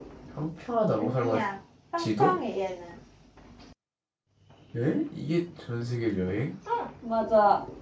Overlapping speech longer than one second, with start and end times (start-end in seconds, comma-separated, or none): none